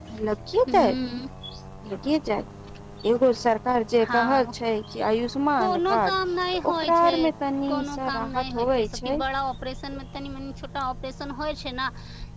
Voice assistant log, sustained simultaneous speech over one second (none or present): present